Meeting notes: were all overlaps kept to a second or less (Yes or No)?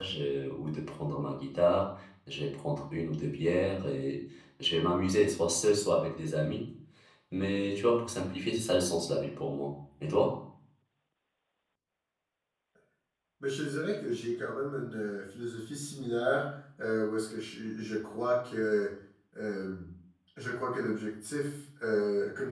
Yes